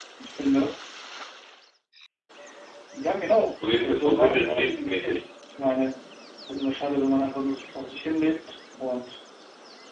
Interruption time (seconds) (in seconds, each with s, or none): 3.8 s